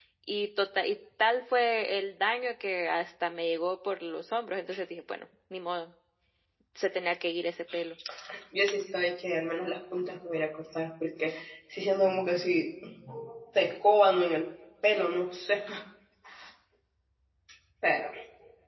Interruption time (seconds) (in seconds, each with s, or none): none